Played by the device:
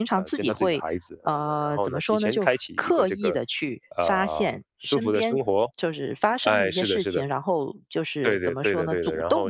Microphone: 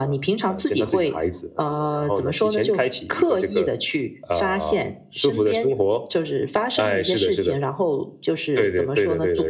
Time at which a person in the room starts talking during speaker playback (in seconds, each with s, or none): none